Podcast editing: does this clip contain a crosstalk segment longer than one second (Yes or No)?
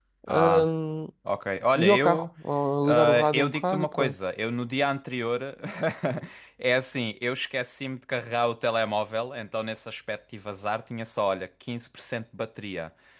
Yes